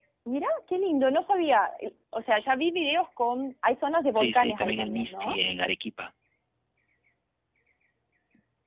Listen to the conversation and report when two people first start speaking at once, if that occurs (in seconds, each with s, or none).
4.2 s